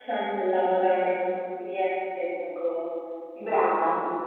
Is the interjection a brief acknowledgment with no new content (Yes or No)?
Yes